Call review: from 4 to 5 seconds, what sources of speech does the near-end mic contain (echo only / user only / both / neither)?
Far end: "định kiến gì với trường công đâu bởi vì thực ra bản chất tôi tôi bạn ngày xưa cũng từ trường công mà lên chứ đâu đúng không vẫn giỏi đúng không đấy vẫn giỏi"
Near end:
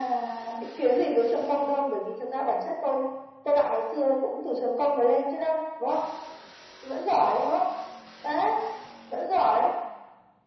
echo only